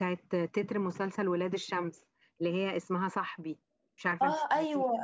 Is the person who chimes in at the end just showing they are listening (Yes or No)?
No